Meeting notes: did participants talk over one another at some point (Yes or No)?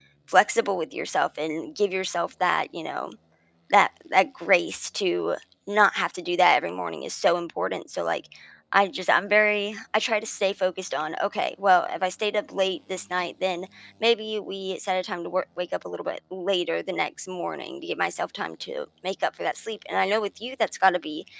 No